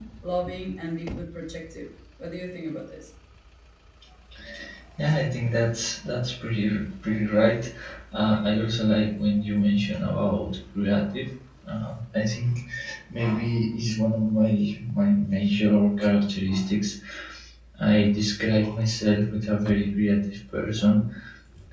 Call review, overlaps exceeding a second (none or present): none